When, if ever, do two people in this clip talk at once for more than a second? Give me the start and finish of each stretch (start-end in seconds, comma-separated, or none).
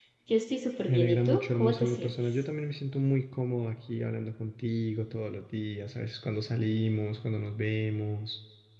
0.9-2.4